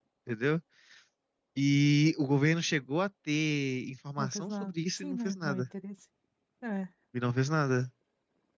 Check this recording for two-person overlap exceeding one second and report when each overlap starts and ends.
4.2-5.7

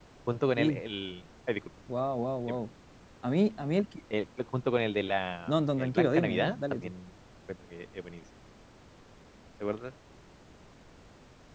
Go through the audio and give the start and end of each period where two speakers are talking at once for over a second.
5.5-6.9

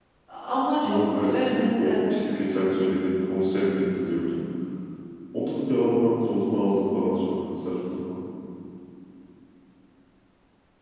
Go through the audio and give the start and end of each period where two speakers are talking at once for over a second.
0.8-2.2

